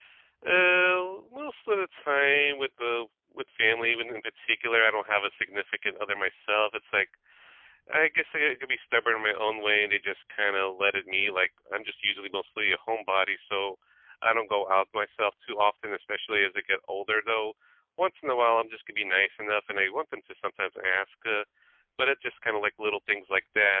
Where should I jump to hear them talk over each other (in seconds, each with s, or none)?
none